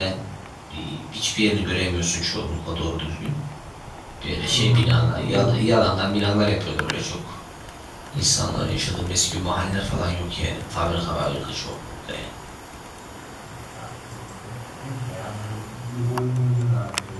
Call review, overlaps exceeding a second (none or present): present